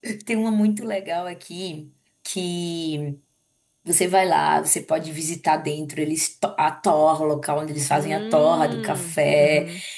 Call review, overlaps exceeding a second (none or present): present